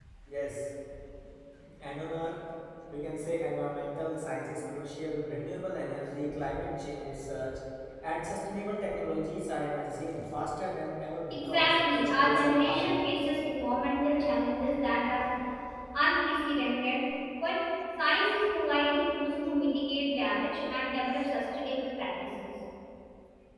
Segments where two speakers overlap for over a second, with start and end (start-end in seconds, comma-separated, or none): 11.3-12.9